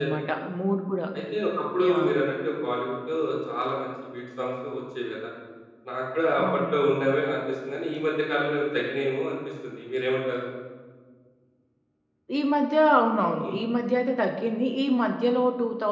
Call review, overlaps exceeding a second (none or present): none